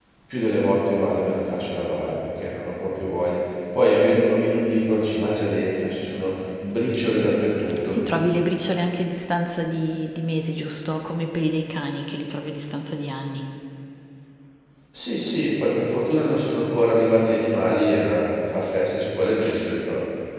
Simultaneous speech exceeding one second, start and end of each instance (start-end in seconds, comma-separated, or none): none